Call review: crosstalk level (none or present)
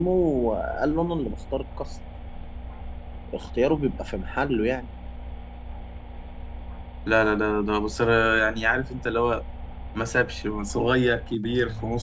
none